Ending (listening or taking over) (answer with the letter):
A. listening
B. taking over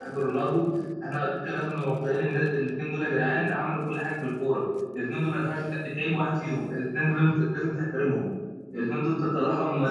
A